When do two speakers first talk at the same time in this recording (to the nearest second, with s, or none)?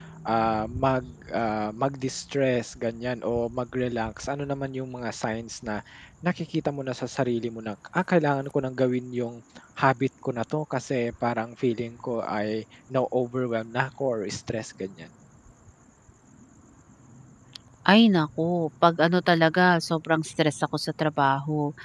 none